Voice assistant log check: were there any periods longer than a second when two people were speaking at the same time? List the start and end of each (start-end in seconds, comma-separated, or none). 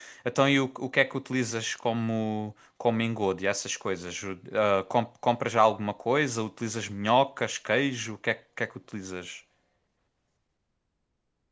none